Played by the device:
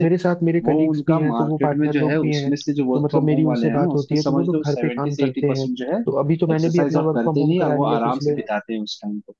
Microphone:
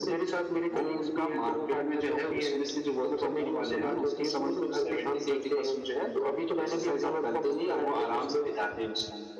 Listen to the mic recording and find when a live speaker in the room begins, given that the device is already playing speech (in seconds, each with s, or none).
none